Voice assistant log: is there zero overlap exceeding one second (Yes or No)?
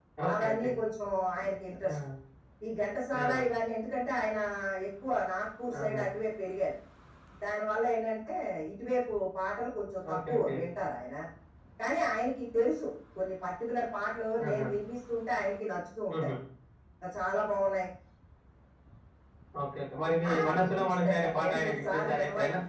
No